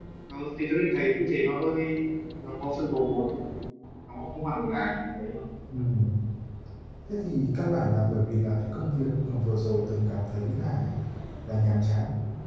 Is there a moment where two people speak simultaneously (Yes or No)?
No